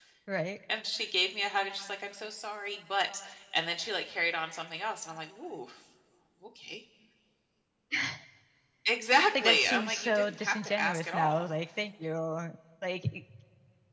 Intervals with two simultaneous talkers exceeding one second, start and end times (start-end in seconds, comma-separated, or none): 9.2-11.5